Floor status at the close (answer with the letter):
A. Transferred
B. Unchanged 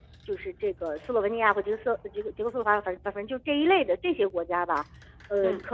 B